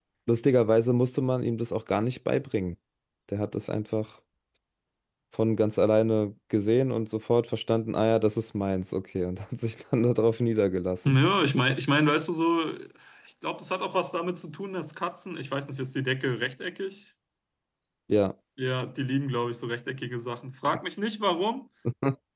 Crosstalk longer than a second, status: none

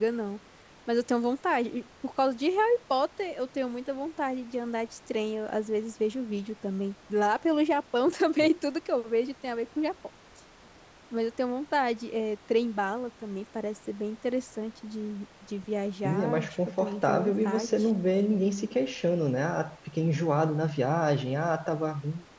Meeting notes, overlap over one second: present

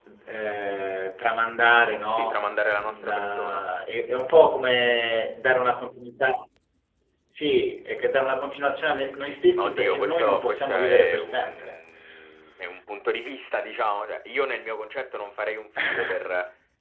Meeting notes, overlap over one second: present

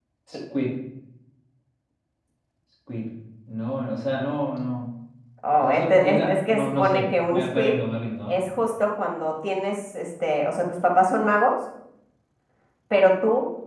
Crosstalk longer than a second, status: present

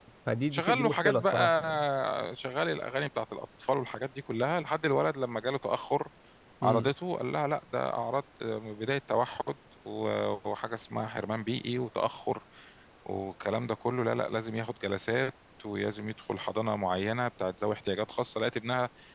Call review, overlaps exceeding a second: present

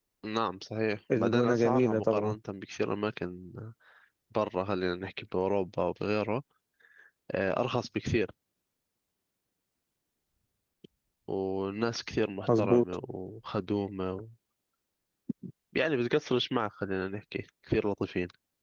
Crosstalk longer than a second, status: present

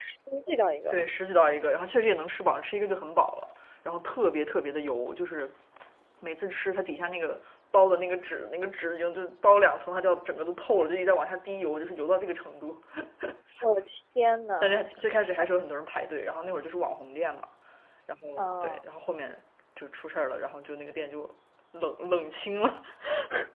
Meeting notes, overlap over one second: none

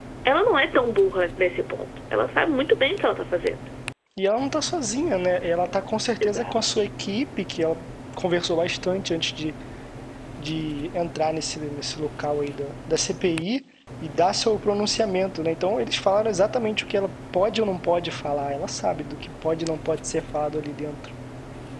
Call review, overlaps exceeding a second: none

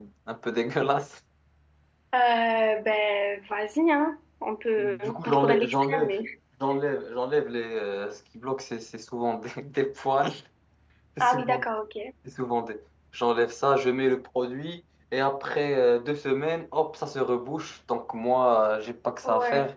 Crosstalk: present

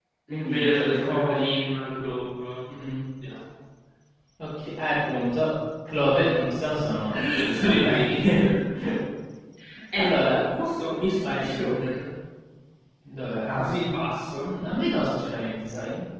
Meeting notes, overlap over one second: present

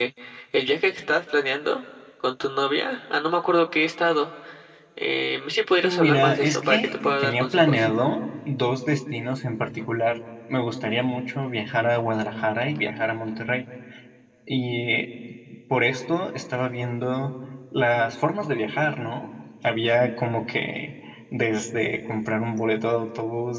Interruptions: present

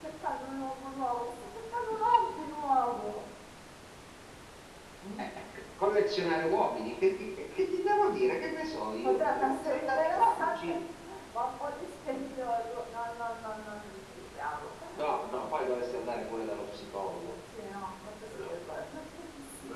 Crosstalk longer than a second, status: present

